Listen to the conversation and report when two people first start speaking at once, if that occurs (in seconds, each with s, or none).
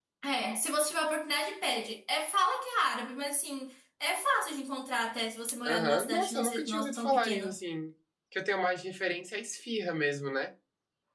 5.7 s